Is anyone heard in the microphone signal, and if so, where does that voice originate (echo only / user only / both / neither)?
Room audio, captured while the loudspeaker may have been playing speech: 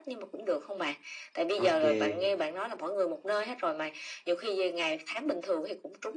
both